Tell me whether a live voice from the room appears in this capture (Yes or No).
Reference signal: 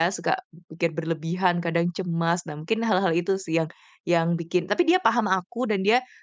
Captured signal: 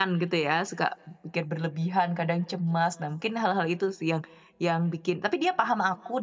No